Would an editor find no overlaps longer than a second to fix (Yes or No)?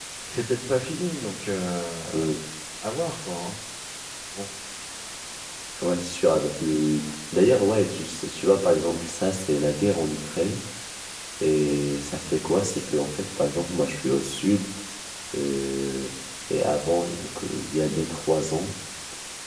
Yes